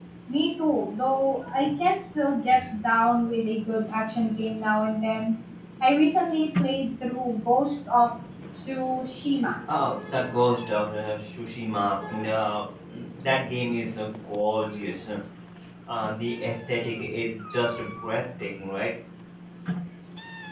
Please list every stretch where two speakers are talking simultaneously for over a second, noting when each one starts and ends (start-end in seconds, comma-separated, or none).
none